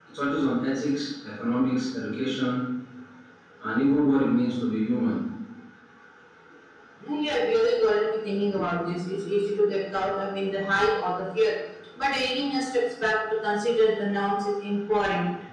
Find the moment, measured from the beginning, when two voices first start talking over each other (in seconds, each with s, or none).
none